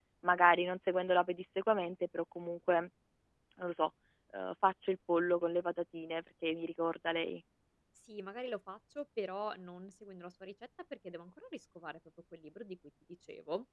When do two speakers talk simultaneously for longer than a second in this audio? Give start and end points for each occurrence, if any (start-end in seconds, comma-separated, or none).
none